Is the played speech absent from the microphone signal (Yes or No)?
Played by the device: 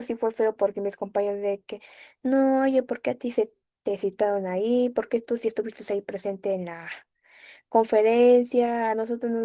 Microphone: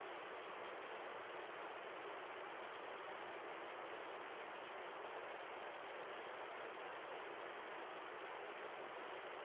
Yes